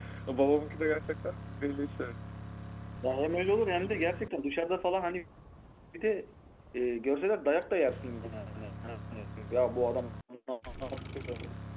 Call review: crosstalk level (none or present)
none